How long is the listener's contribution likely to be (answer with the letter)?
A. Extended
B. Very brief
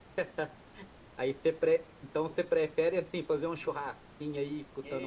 A